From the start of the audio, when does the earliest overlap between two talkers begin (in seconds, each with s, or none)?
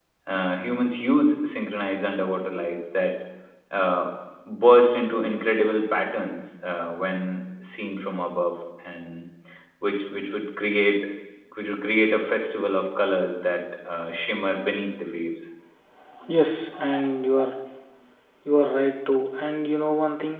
none